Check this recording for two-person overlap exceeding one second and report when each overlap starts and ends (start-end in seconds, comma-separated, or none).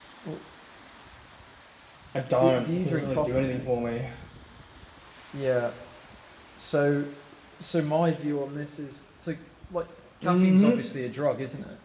2.4-3.6